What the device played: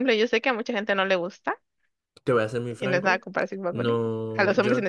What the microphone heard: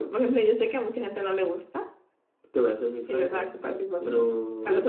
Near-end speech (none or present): none